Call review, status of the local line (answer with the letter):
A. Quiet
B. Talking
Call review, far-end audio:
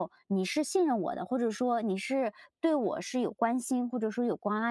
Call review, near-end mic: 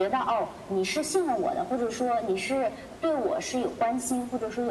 A